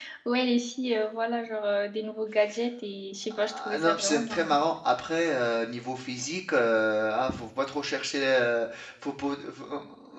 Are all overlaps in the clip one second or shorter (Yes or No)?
No